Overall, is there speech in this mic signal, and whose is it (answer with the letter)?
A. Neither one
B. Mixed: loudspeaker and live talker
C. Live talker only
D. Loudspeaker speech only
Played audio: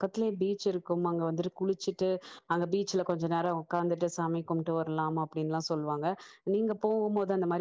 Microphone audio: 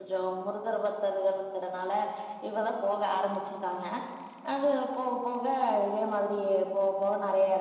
C